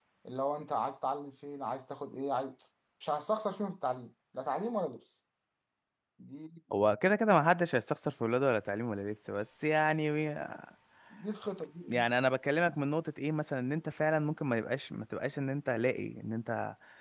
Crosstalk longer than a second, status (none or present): none